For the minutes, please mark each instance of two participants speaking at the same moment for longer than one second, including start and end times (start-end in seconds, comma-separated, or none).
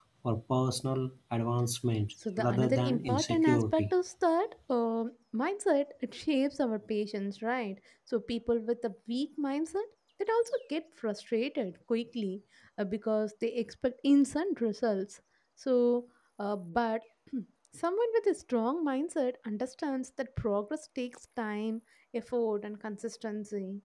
2.4-3.9